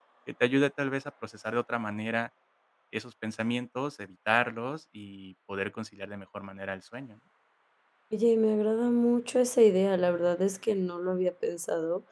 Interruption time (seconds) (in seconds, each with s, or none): none